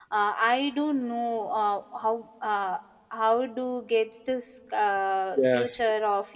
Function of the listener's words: listening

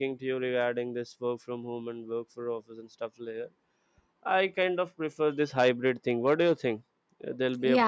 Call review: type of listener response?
taking over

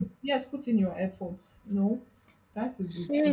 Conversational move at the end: taking over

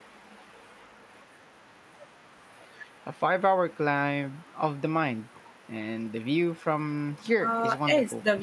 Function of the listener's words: taking over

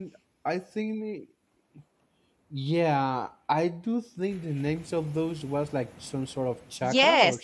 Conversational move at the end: taking over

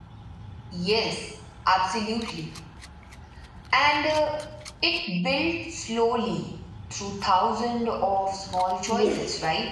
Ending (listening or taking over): taking over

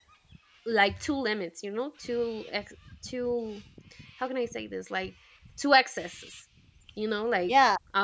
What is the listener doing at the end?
taking over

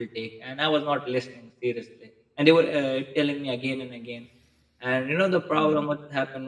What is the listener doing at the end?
listening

